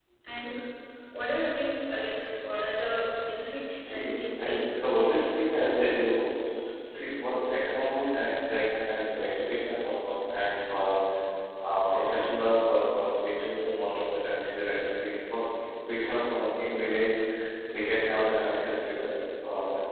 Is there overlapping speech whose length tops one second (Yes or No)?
Yes